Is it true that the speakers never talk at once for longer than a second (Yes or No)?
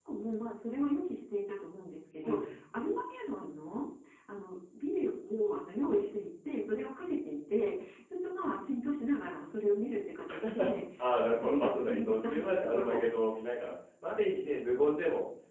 No